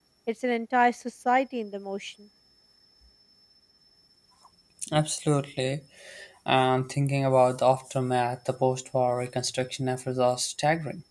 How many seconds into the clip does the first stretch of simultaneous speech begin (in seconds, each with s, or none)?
none